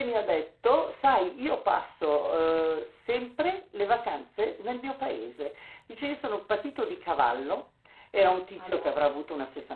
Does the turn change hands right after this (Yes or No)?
No